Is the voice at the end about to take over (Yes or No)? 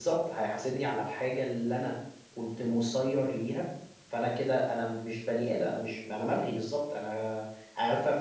No